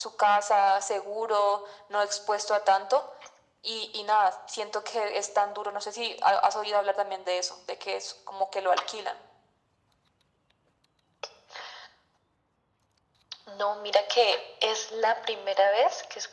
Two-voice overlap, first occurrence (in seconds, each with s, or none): none